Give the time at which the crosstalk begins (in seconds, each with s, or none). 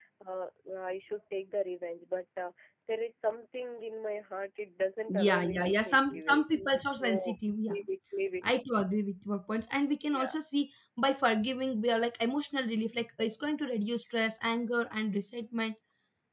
5.1 s